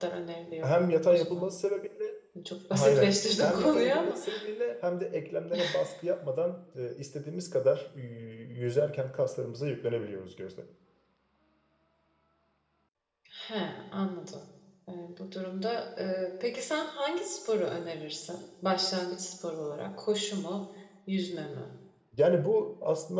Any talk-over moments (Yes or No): Yes